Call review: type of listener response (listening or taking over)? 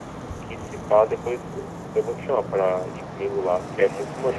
taking over